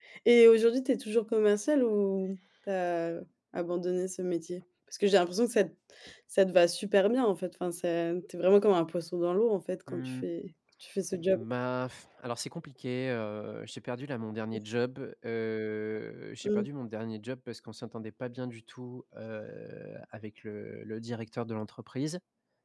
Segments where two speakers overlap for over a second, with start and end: none

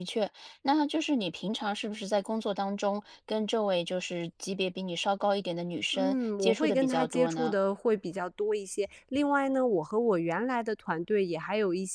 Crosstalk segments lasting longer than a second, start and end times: 5.9-7.5

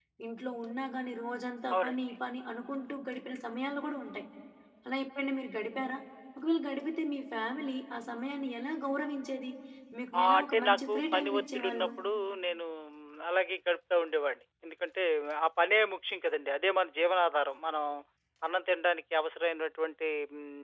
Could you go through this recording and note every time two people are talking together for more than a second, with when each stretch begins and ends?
10.2-11.9

